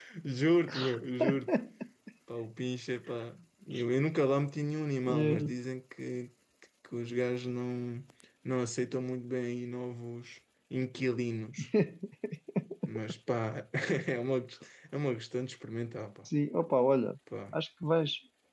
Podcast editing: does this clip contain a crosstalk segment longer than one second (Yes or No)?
No